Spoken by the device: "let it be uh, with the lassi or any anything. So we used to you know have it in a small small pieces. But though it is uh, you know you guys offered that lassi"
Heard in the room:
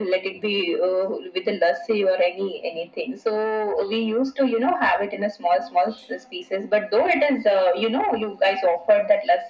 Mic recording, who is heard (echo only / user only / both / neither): echo only